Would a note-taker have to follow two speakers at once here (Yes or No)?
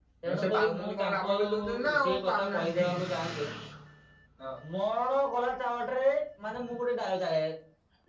Yes